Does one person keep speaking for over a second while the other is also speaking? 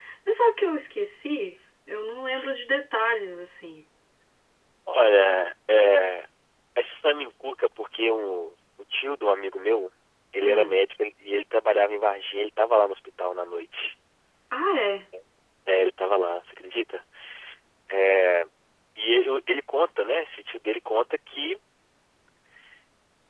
No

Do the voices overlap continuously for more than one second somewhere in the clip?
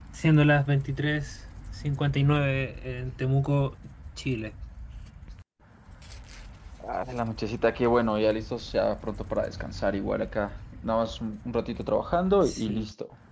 No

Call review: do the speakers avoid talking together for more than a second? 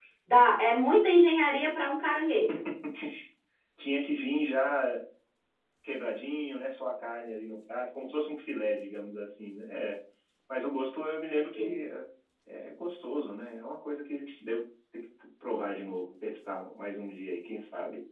Yes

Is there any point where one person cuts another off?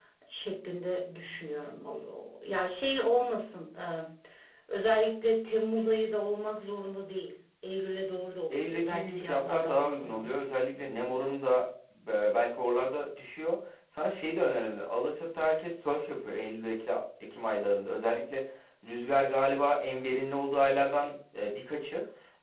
Yes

